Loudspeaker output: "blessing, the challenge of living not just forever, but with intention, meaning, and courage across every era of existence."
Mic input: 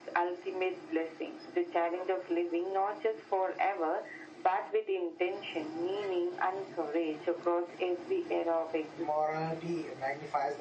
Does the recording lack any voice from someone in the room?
No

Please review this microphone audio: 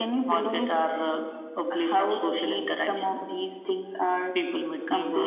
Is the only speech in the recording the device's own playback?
Yes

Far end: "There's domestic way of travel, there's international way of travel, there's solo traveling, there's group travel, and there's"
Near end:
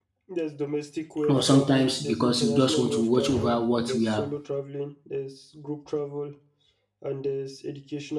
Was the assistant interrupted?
Yes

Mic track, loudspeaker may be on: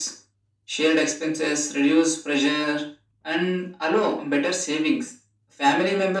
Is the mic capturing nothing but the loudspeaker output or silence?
Yes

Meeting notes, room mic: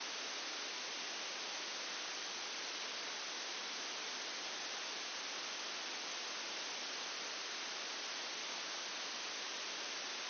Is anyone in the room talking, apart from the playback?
No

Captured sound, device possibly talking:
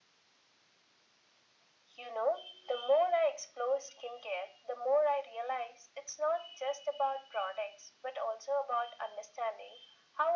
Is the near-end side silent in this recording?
Yes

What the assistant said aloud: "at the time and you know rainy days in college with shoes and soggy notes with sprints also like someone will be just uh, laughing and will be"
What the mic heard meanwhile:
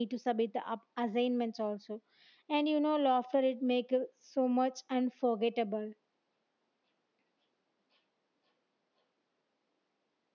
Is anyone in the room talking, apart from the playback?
Yes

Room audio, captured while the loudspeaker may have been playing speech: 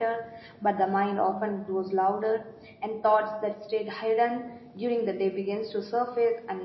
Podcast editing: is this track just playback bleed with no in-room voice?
No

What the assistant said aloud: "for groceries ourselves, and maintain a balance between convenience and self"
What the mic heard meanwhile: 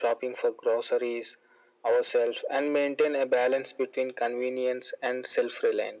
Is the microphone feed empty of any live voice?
Yes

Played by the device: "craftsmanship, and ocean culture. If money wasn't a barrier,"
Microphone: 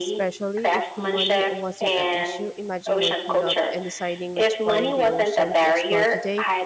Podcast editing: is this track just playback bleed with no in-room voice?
No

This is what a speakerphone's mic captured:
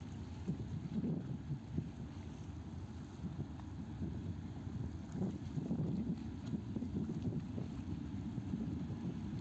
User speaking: No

